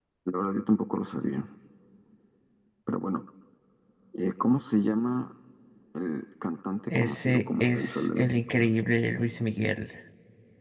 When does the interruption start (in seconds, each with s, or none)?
6.9 s